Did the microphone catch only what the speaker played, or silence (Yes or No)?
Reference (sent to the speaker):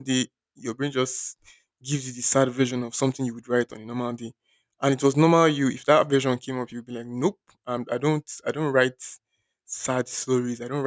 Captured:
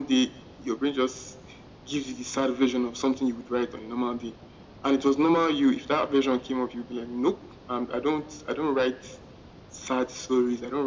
Yes